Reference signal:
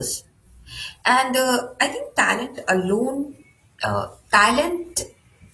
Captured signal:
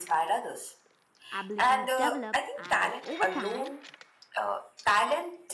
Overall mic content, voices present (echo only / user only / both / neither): both